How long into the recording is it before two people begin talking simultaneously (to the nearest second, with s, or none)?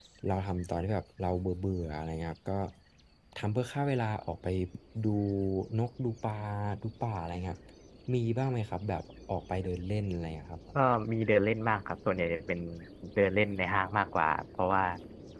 none